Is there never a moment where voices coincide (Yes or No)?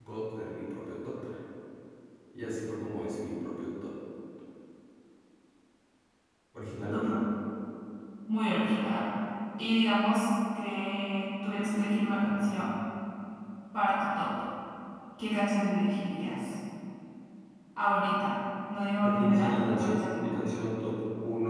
No